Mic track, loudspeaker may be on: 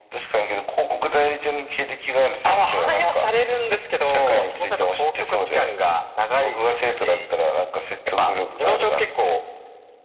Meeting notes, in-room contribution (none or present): none